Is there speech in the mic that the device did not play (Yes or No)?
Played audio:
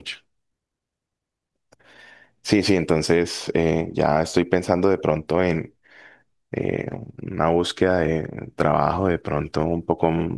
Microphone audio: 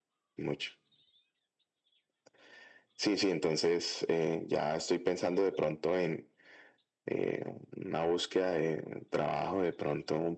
No